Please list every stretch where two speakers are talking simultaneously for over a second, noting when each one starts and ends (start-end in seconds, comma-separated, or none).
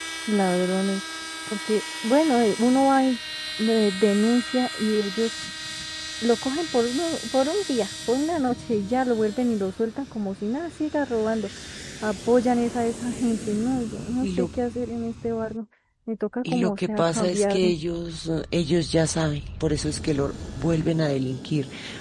16.4-17.7